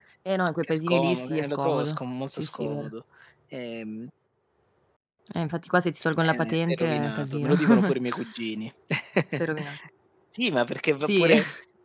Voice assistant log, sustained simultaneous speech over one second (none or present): present